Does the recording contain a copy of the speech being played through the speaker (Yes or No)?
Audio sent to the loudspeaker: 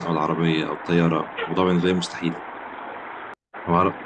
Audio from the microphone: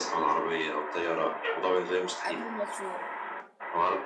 Yes